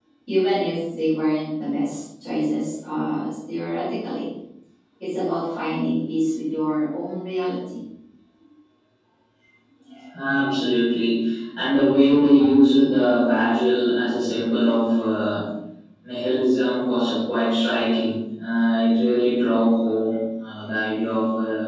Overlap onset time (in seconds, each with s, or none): none